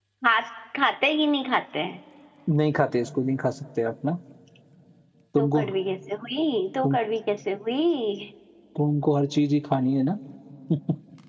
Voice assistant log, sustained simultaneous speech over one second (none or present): none